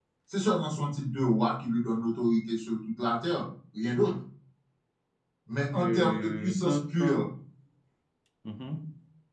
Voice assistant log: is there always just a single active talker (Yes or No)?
No